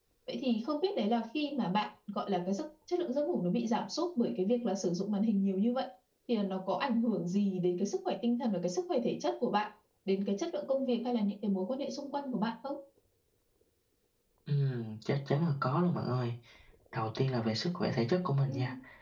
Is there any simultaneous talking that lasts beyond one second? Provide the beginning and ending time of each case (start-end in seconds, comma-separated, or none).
none